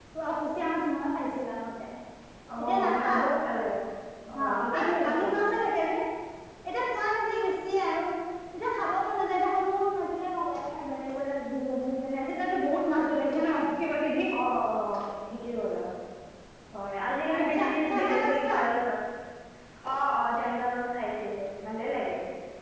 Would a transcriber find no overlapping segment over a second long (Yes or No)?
No